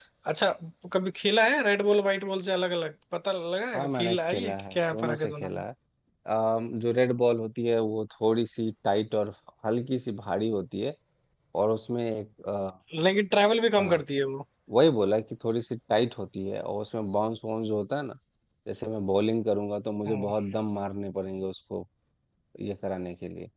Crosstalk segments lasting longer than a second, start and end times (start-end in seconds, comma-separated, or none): 3.8-5.6